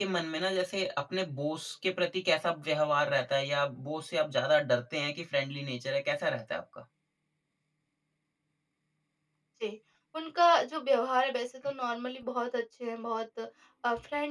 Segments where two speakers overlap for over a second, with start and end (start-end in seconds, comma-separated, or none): none